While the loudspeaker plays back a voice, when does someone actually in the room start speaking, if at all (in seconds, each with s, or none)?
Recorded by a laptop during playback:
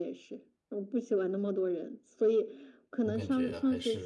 3.0 s